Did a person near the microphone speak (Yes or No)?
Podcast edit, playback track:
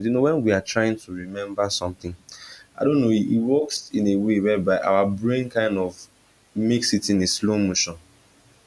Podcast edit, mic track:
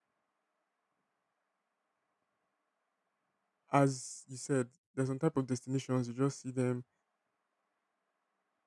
Yes